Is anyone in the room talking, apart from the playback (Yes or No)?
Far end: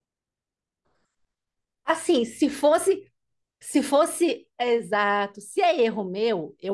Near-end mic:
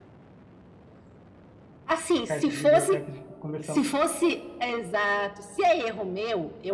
Yes